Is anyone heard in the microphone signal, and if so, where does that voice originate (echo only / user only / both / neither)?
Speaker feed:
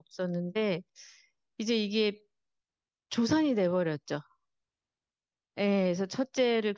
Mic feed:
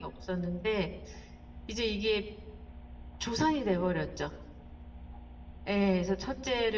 echo only